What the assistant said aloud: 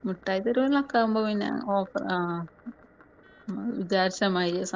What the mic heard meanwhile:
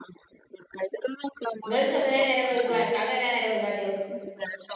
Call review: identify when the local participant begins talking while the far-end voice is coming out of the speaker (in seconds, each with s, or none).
1.7 s